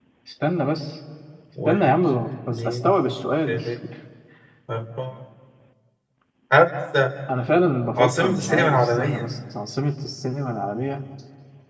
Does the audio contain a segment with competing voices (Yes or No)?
Yes